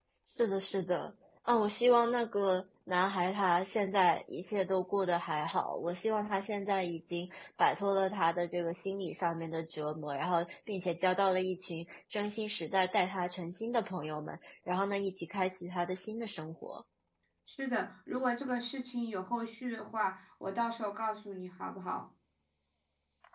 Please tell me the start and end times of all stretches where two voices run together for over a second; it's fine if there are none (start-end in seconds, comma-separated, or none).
none